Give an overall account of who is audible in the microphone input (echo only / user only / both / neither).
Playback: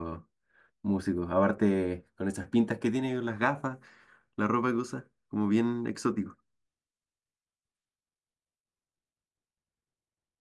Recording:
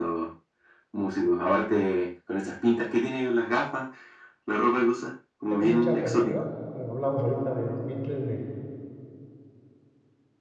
both